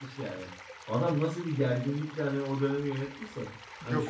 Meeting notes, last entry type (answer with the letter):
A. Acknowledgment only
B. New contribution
B